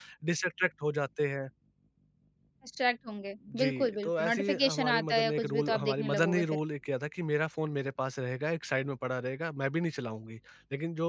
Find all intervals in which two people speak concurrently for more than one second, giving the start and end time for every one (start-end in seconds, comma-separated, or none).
3.6-6.4